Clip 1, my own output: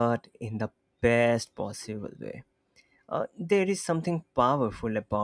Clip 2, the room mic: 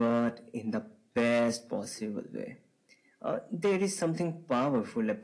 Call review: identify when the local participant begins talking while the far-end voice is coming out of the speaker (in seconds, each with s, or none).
none